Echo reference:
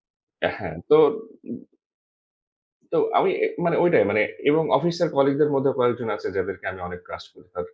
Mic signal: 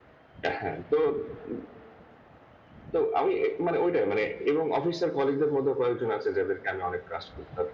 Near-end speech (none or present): none